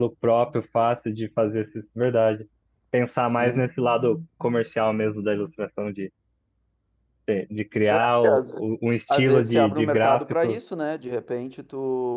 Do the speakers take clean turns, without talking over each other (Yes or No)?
No